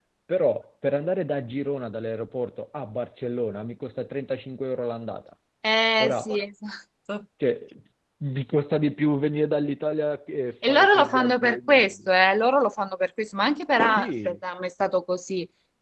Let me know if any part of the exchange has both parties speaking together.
Yes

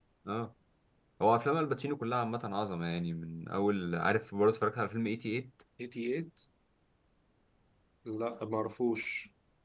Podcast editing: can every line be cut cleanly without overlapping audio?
Yes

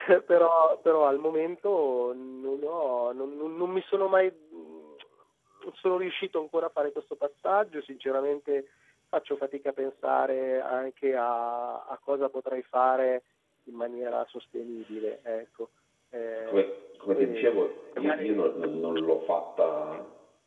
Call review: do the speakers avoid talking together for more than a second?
Yes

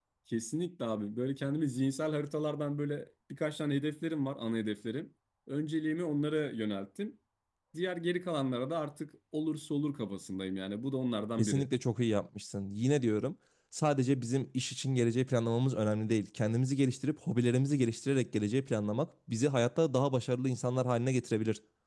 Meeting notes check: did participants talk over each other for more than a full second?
No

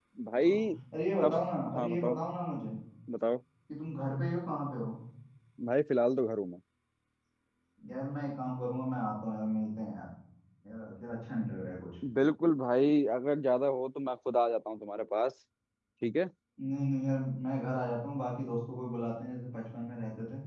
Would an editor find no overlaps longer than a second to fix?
Yes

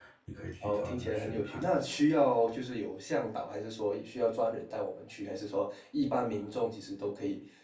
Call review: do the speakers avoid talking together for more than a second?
No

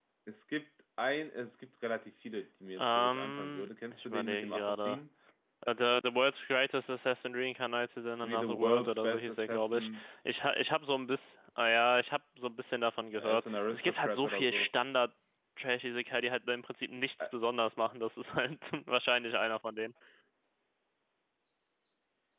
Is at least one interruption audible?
Yes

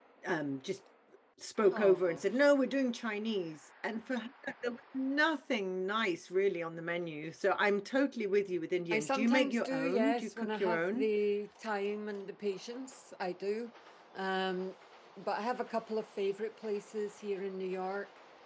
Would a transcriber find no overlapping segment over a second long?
No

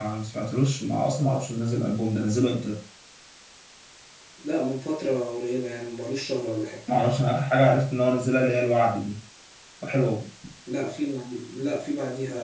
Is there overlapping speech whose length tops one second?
No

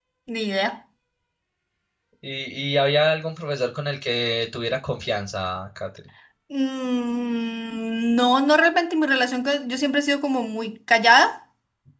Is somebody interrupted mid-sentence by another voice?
No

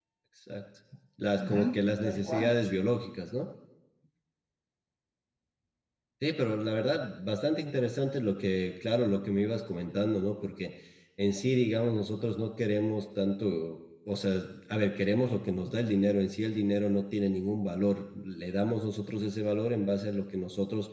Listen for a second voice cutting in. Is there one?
Yes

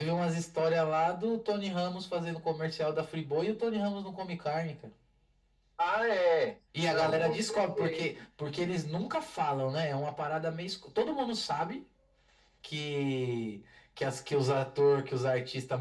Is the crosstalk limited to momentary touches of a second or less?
No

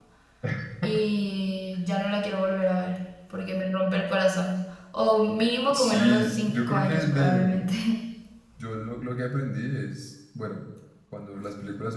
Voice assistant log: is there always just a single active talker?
No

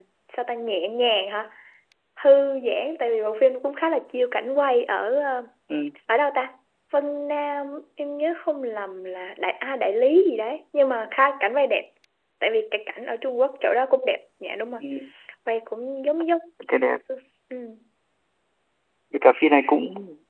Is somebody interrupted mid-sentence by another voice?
No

